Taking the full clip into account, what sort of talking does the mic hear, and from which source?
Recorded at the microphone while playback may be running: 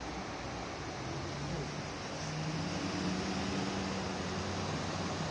neither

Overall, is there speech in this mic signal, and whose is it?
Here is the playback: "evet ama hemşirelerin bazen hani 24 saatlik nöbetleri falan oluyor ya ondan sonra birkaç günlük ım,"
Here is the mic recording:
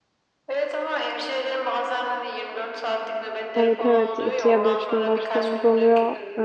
both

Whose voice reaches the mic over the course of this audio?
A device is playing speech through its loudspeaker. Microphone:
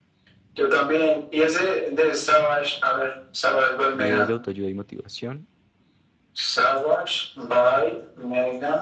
both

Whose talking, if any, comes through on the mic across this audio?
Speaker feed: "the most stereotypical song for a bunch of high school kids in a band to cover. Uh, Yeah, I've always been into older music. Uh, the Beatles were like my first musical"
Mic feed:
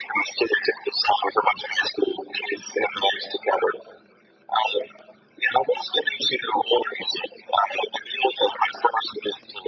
echo only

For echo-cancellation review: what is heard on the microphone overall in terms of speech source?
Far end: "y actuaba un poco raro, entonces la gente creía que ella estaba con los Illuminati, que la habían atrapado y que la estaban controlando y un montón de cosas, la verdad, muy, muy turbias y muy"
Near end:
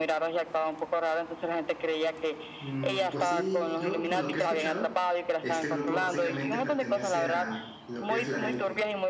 both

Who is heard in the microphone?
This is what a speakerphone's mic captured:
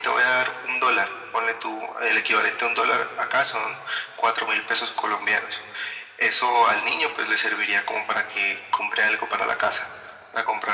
echo only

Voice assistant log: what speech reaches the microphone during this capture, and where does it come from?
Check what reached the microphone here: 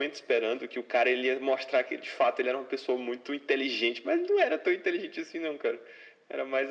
echo only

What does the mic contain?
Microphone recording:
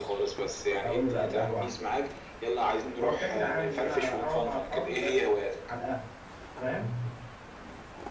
both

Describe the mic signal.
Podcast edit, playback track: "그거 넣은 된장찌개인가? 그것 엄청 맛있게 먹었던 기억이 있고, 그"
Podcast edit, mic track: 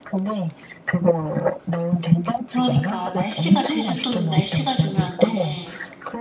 both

